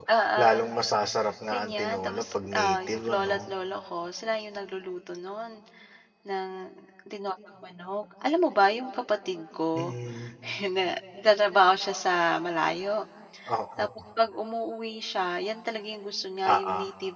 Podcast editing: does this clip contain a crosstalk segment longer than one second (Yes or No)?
Yes